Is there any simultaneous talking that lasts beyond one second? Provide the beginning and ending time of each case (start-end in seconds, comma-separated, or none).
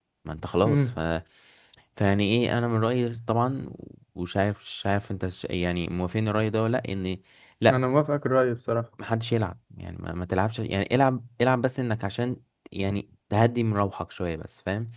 none